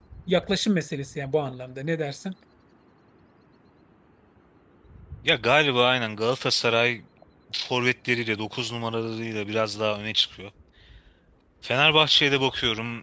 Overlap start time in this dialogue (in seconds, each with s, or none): none